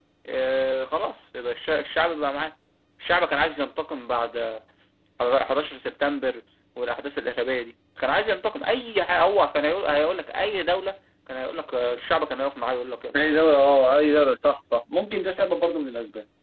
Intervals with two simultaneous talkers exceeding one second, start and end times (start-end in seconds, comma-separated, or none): none